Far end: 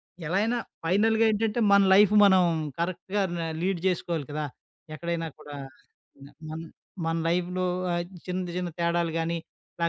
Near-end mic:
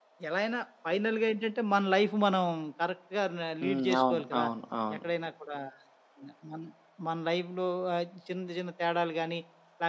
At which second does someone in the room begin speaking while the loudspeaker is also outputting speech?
3.6 s

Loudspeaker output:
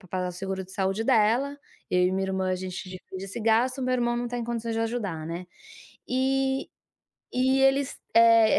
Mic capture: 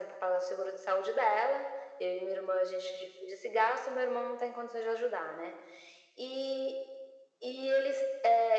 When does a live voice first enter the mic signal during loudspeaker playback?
none

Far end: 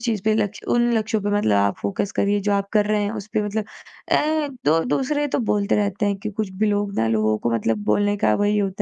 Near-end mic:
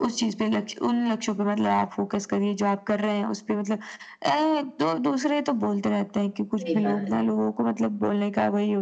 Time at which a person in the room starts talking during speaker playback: 6.6 s

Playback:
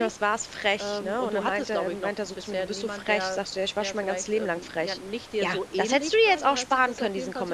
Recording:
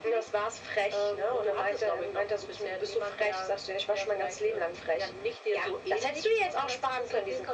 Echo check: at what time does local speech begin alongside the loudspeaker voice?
none

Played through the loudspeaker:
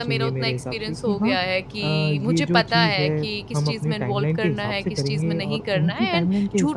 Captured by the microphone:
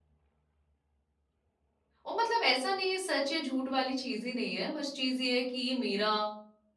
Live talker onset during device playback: 2.0 s

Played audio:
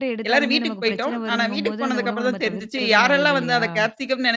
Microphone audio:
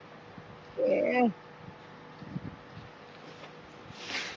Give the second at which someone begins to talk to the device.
0.8 s

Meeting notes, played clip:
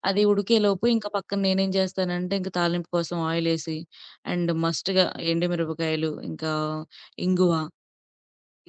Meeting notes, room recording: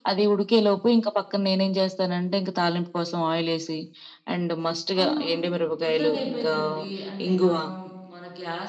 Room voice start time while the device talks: 5.0 s

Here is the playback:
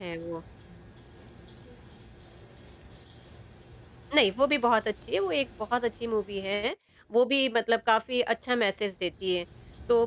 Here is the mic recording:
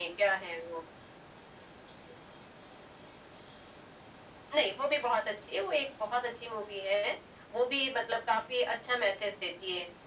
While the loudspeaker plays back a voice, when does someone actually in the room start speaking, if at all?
none

